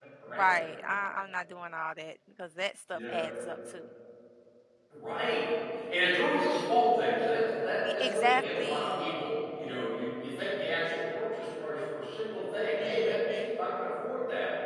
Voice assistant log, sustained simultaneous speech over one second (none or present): present